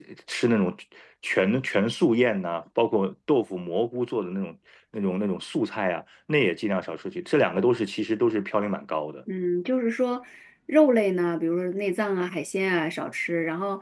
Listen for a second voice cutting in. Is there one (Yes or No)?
No